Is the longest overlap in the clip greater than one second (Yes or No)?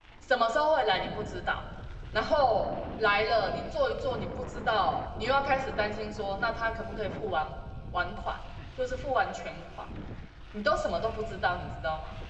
No